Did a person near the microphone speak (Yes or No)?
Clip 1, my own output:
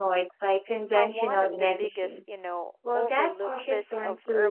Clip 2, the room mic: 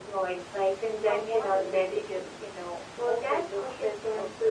No